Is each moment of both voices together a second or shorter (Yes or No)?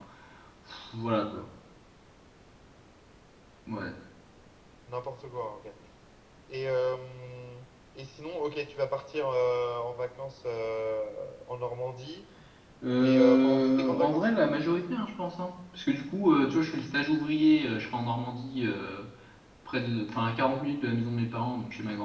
No